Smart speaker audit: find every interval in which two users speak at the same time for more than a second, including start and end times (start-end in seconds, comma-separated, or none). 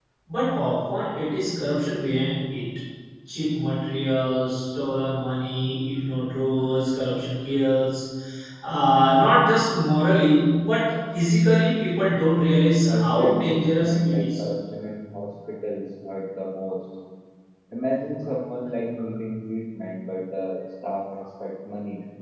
12.9-14.4